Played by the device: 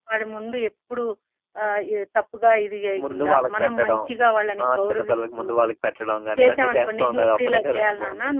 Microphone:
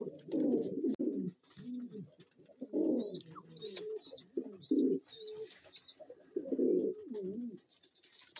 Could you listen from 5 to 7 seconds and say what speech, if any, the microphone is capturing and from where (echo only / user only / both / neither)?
neither